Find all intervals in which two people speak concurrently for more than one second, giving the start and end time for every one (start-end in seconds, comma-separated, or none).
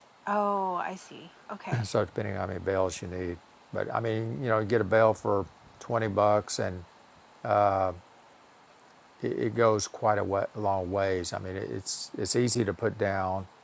none